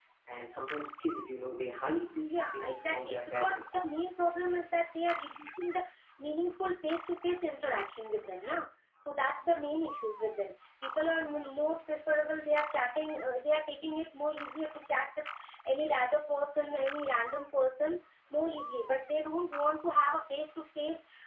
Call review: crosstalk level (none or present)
present